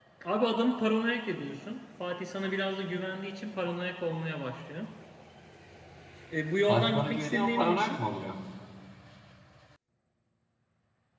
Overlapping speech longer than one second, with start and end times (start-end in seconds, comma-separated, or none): 6.7-8.0